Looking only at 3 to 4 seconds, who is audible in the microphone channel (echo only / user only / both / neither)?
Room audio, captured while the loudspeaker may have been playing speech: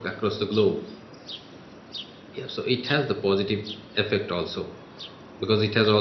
user only